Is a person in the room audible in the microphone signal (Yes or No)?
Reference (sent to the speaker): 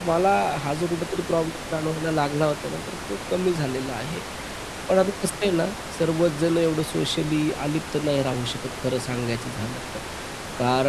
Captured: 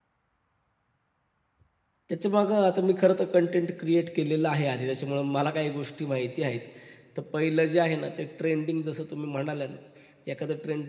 Yes